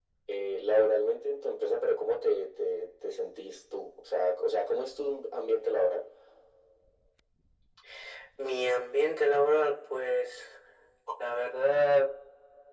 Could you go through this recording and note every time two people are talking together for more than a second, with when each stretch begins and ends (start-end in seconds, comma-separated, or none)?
none